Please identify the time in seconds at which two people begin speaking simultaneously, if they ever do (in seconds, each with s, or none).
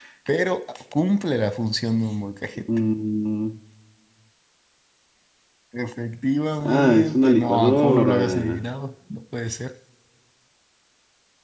6.6 s